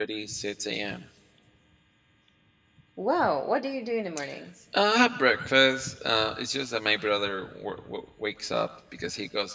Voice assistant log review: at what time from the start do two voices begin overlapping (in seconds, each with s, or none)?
none